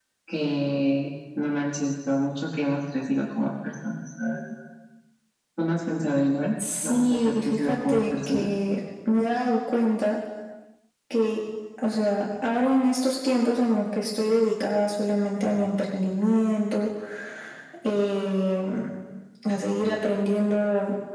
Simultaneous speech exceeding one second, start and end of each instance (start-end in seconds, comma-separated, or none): 6.8-8.5